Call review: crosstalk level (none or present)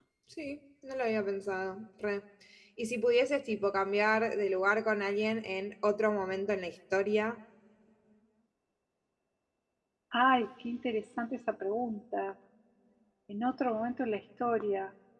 none